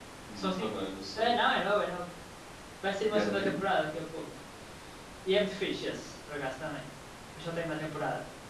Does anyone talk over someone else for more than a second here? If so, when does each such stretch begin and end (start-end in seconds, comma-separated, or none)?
none